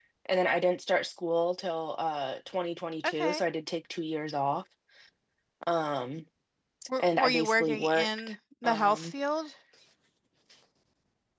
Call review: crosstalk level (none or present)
present